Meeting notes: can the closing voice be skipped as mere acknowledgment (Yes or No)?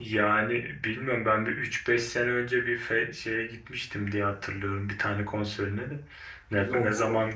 Yes